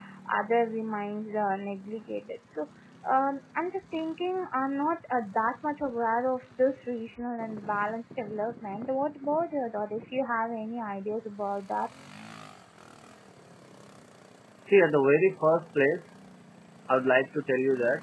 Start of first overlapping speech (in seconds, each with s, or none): none